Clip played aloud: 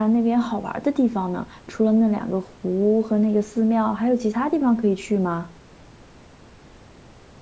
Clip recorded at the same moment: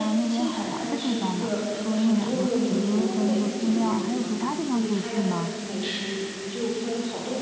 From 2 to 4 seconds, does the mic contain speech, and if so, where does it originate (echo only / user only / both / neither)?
both